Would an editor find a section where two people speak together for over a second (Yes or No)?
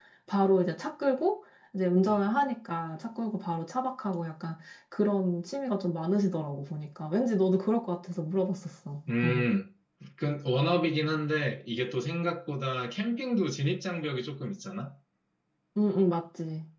No